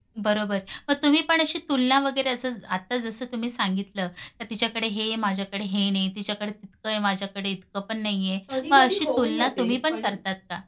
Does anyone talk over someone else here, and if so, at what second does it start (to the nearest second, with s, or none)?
8 s